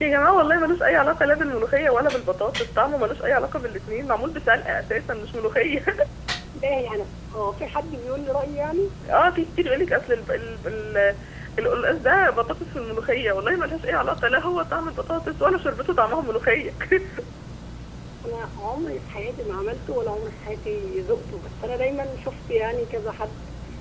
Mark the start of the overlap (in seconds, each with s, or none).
none